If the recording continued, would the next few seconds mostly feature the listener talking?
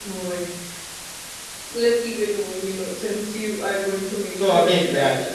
Yes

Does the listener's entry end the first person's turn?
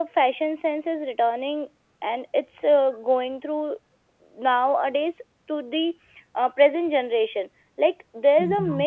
No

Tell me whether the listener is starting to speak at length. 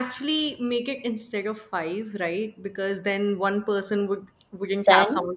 No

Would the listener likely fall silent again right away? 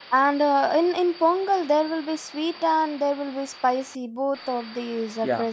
No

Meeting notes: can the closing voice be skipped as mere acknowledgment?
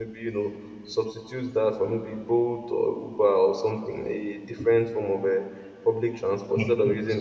Yes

